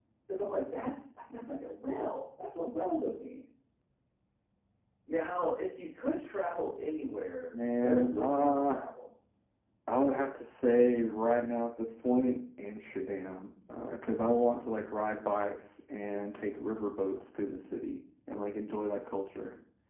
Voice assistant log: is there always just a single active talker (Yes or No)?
No